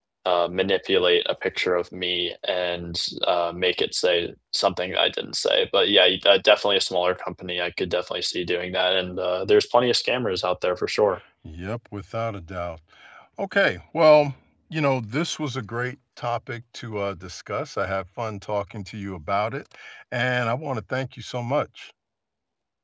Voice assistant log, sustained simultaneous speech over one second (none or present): none